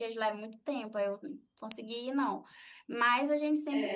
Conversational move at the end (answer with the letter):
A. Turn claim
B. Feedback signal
A